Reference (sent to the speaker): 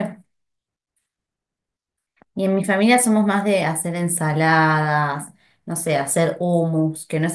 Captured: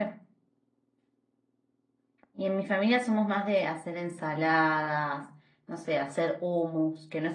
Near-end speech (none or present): none